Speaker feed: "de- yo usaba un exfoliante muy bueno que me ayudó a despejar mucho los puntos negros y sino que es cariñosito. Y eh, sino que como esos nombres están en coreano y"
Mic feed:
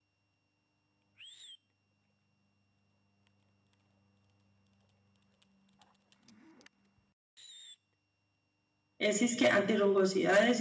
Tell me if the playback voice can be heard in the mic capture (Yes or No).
No